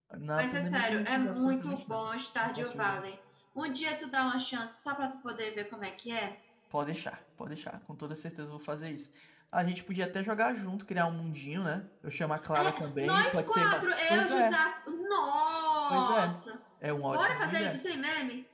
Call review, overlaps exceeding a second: present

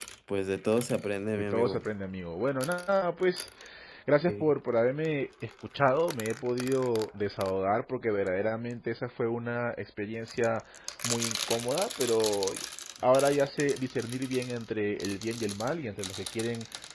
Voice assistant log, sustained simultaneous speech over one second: none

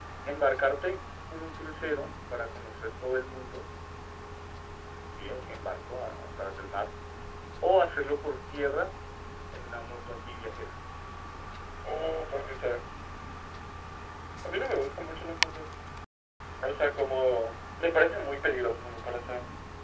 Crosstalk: none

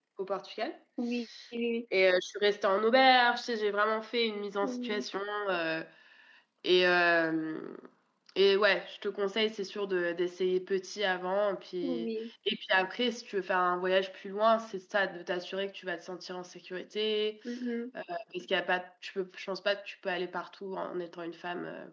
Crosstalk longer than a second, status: none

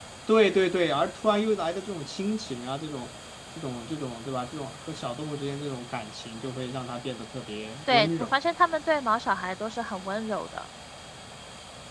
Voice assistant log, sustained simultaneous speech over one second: none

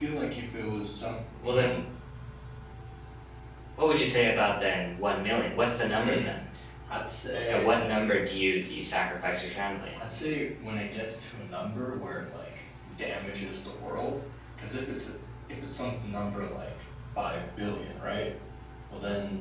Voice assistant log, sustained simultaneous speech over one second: none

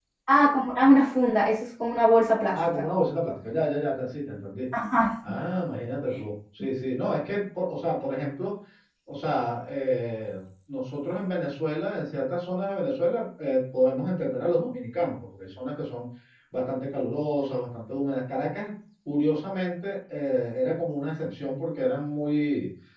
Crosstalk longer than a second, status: none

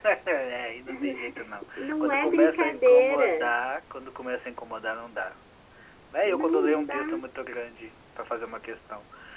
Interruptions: present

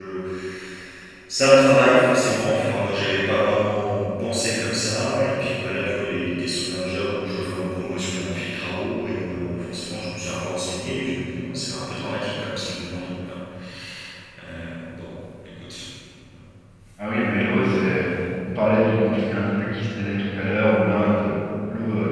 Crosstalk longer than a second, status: none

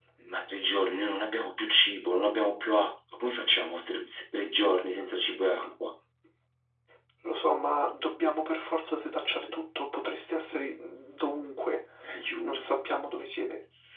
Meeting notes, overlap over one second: none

